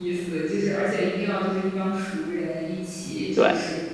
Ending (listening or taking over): listening